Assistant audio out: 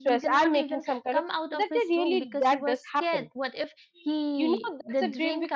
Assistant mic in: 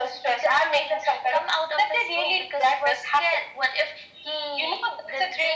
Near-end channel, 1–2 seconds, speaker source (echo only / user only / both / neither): echo only